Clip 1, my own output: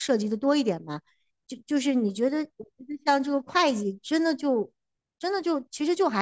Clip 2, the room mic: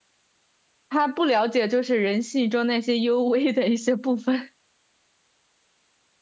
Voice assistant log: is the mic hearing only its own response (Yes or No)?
No